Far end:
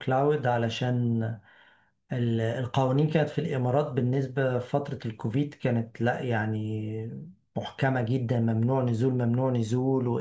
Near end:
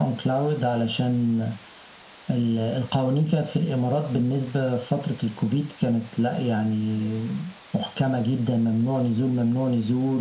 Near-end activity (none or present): none